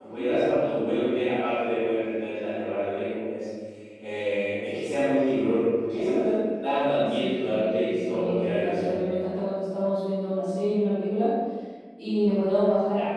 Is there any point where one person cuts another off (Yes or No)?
Yes